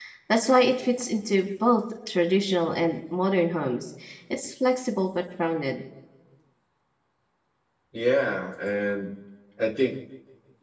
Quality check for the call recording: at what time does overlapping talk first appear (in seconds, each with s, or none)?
none